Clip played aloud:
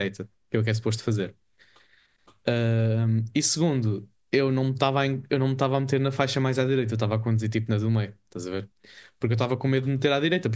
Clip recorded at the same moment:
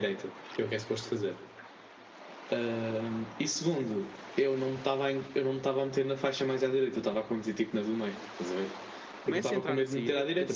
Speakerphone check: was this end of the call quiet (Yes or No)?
No